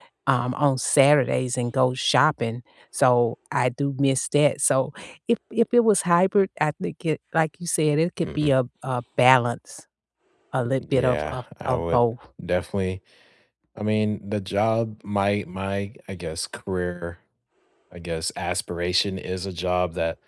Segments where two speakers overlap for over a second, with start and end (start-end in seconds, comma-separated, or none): 10.8-12.0